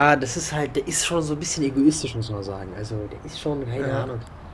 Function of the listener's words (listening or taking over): listening